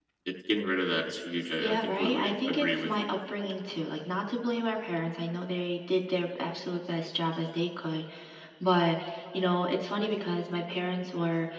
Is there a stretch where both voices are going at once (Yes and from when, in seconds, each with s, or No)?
Yes, from 1.6 s